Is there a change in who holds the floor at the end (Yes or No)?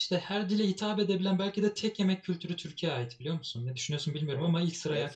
Yes